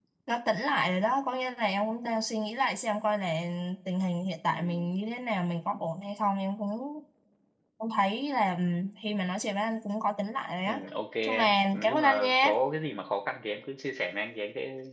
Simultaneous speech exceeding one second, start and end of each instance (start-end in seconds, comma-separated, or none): 11.2-12.5